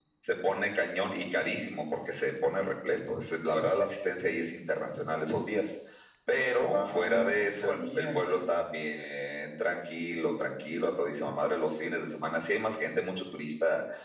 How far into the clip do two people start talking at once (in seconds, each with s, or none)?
6.6 s